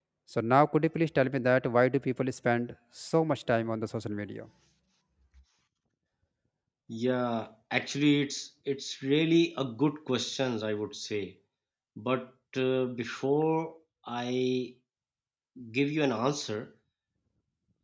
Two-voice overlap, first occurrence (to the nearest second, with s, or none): none